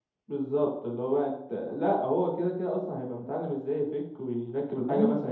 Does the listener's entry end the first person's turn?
Yes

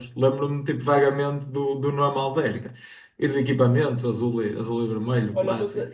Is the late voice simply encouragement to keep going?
No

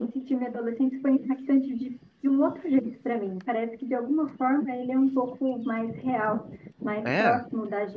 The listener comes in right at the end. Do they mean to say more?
No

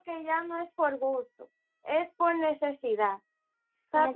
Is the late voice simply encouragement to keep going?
No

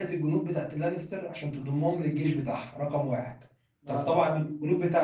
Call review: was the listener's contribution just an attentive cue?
Yes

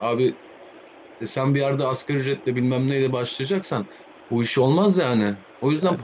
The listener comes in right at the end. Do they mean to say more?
Yes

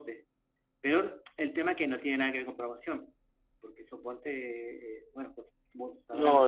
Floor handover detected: Yes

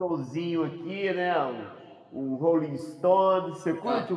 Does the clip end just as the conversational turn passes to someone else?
No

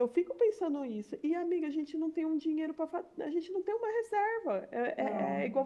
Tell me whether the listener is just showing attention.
Yes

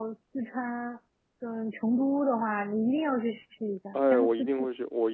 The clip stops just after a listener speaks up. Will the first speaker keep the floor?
No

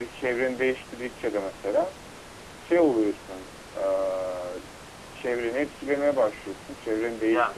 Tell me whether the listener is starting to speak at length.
No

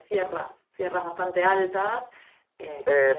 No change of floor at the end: No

